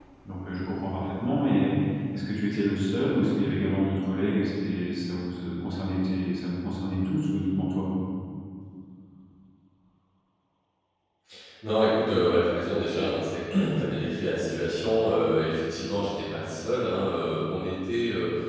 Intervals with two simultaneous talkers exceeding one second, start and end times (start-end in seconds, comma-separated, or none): none